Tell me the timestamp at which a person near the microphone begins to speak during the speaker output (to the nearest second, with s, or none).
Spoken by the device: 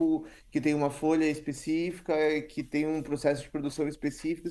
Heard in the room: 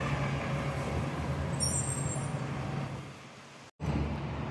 none